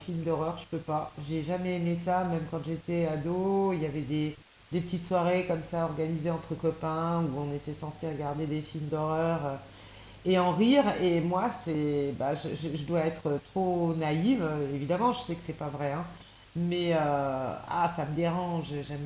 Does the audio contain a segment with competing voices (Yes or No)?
No